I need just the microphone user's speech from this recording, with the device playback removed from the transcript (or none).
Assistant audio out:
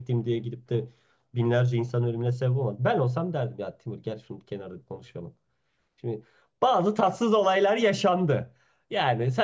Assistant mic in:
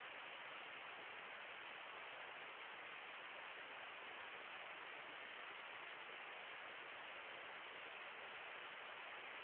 none